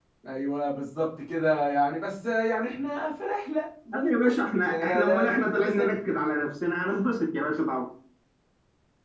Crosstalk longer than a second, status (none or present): present